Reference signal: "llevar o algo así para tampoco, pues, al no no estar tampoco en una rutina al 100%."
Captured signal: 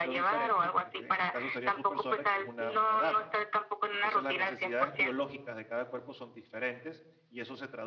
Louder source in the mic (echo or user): echo